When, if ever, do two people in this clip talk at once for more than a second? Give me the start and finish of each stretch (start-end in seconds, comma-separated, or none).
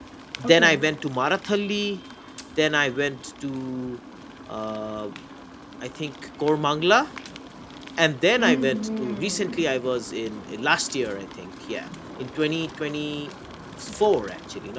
8.4-9.6